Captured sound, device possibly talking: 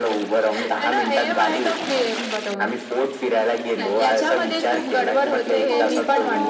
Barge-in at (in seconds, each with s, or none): 5.5 s